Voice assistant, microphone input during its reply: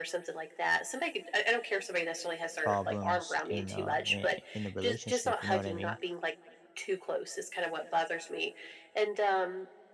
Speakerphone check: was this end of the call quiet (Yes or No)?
No